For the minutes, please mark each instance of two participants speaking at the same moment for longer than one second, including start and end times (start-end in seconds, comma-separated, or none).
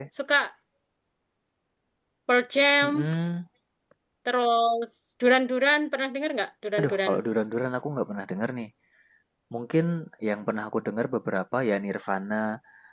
none